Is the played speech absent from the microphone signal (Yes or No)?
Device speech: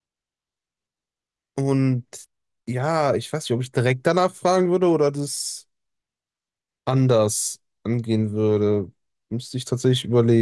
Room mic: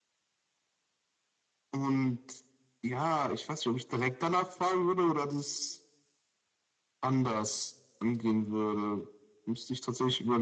No